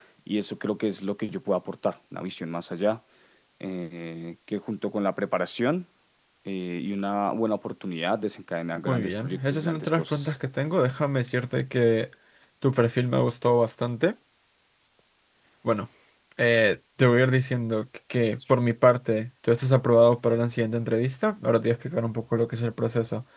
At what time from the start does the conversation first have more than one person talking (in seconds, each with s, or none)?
8.9 s